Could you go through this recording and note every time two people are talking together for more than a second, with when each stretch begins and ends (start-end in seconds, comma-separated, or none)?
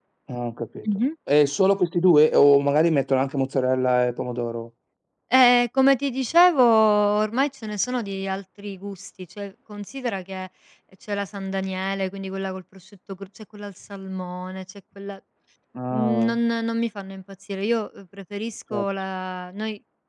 none